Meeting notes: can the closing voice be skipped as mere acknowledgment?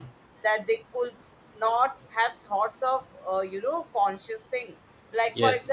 Yes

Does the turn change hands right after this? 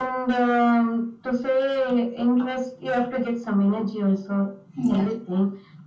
No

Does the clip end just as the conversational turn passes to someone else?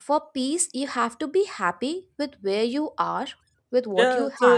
Yes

